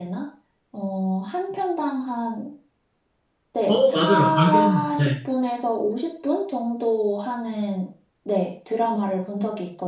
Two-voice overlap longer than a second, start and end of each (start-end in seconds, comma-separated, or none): 3.7-5.1